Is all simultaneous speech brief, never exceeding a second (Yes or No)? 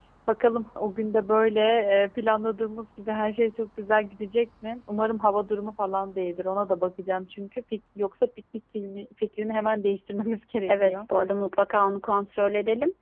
Yes